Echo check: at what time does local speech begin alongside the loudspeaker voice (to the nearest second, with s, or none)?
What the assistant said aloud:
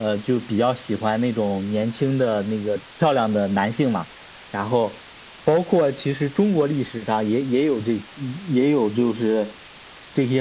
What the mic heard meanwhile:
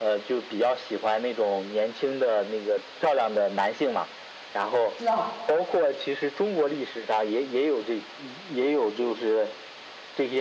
5 s